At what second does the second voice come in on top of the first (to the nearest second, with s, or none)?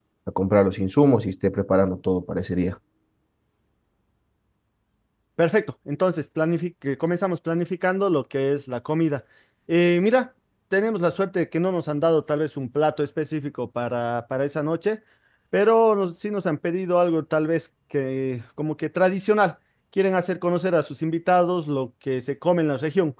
none